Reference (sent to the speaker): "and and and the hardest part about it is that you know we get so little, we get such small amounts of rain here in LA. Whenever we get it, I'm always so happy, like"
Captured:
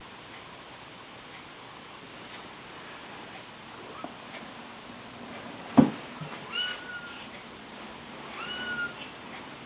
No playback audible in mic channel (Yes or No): Yes